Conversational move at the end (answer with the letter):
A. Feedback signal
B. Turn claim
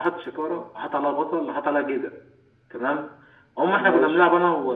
A